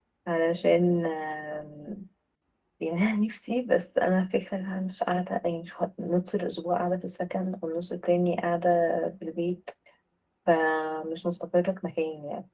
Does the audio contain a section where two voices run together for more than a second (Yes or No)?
No